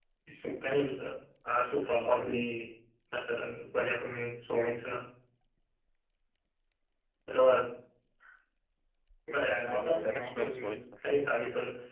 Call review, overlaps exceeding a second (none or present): present